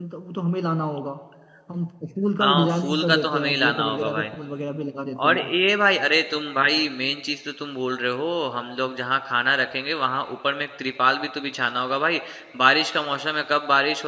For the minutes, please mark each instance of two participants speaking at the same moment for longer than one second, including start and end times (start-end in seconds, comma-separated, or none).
2.4-4.3